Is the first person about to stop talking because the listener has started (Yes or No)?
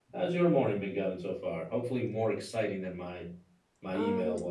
Yes